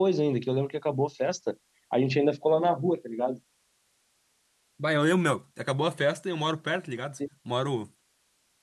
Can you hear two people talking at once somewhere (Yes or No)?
No